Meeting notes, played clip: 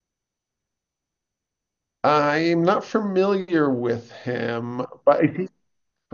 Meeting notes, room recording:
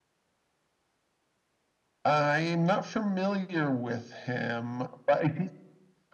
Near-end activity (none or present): none